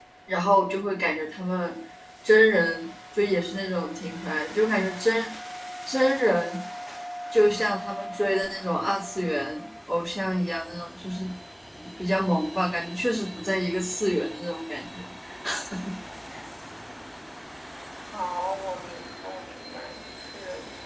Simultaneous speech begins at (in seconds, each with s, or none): none